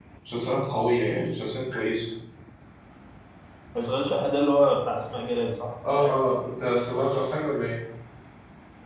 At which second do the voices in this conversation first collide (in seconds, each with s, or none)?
none